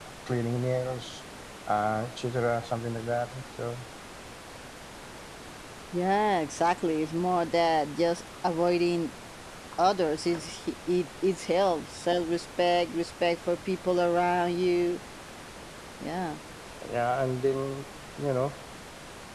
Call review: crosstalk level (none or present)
none